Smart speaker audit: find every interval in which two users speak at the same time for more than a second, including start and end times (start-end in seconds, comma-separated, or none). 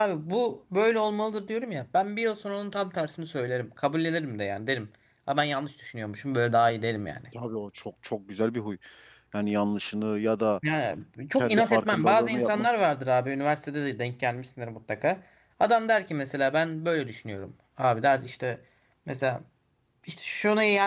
11.3-12.7